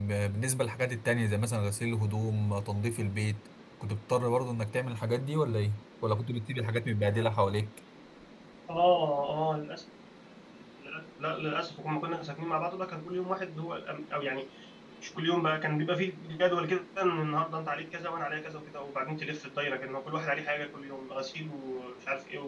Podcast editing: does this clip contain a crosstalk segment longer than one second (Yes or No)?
No